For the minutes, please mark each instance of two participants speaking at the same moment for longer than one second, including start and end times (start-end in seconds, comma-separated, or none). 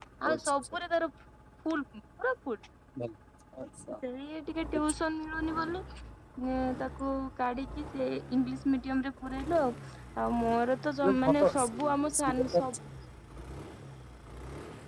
11.0-12.6